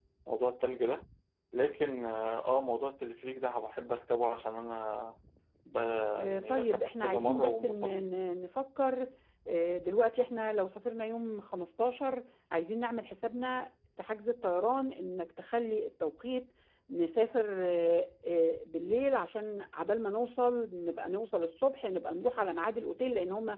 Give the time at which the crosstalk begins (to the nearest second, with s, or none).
6 s